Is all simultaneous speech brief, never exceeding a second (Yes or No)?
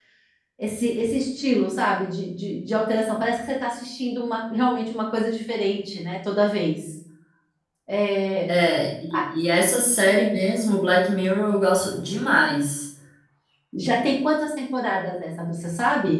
Yes